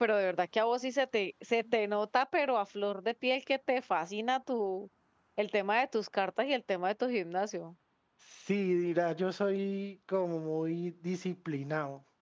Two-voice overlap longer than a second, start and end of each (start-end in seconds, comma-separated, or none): none